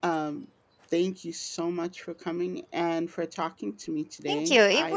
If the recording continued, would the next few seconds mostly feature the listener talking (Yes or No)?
Yes